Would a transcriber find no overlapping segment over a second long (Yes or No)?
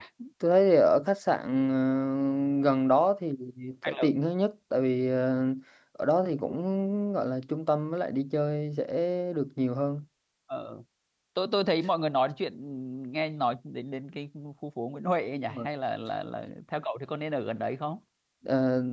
Yes